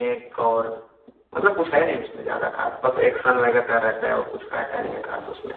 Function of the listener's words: taking over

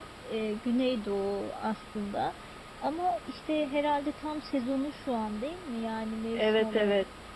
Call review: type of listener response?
taking over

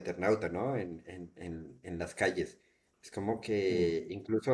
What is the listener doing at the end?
listening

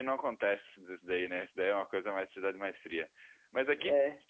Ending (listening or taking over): listening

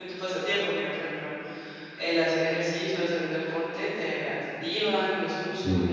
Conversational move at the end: listening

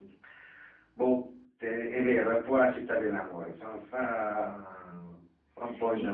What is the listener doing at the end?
taking over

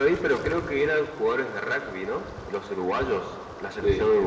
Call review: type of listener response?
listening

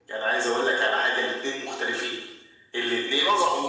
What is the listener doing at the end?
listening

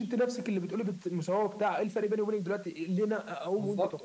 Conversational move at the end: taking over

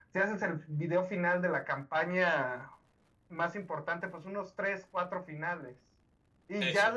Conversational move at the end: listening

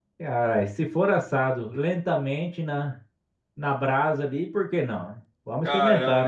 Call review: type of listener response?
taking over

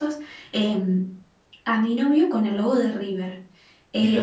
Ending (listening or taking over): listening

